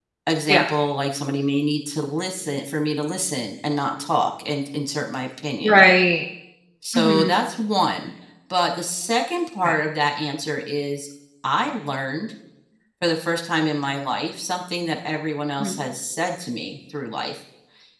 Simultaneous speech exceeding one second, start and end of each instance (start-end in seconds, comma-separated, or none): none